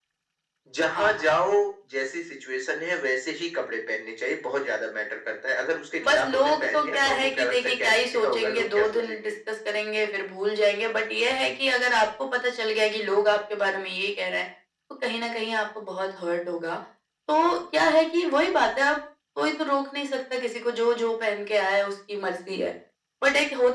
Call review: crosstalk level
present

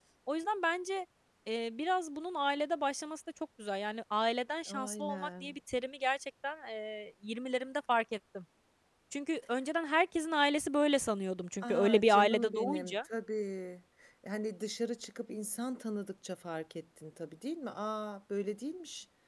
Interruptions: present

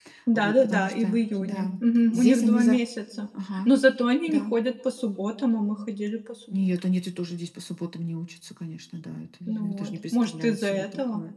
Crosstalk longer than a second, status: present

